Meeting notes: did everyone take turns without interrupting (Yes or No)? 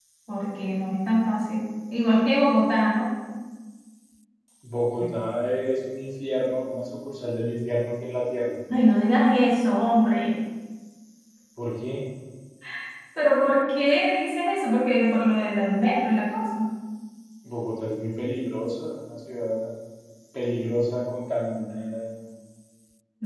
Yes